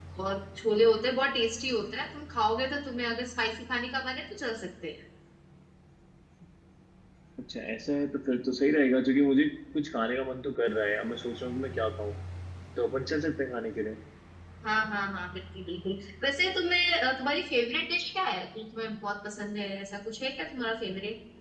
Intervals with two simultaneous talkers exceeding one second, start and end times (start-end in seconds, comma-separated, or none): none